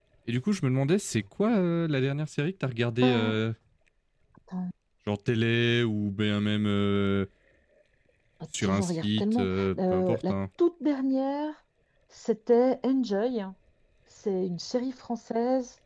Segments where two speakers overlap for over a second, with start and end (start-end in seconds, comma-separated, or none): 8.6-10.3